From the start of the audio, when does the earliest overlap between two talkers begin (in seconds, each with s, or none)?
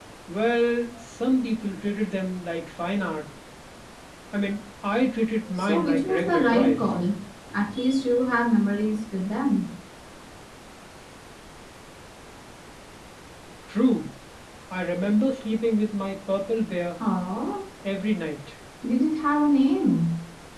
5.5 s